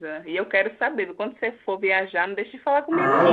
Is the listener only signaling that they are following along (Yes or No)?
No